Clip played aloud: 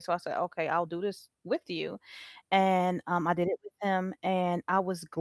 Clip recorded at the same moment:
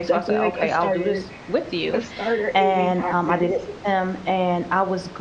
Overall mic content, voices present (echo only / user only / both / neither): both